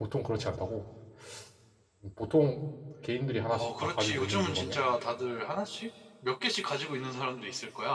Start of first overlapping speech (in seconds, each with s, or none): 3.5 s